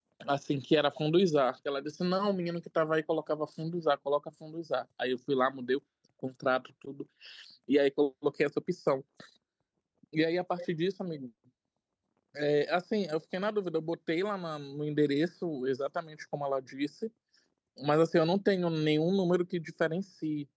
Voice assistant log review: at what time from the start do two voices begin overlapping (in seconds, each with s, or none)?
none